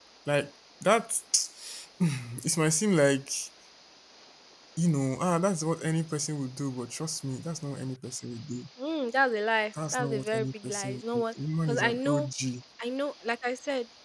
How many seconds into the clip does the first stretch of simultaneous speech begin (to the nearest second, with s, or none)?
10 s